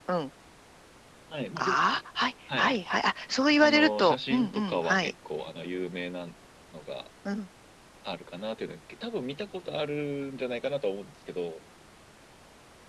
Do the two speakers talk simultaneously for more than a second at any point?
Yes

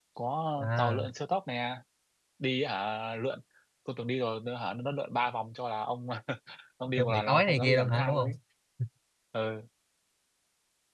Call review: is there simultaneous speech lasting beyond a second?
Yes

